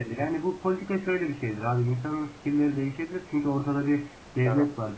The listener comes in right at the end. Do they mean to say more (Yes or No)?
No